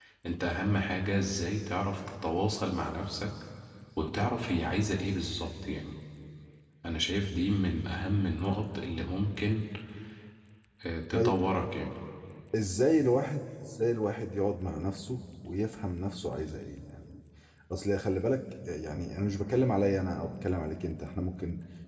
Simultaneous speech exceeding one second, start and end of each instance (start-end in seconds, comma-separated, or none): none